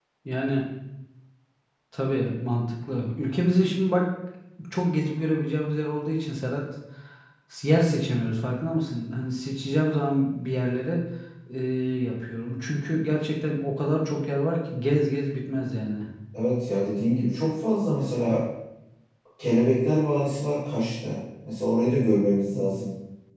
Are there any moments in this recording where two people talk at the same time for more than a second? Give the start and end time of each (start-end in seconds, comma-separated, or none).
none